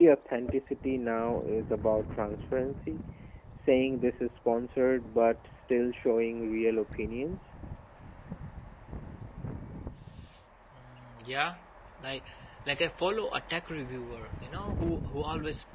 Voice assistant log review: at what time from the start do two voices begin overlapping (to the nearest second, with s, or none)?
none